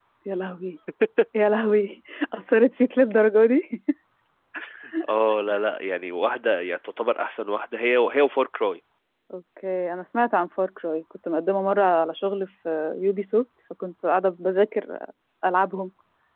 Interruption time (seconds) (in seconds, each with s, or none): none